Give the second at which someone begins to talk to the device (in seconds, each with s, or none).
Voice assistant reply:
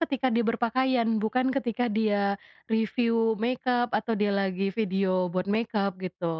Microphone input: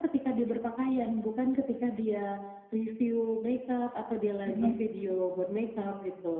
4.4 s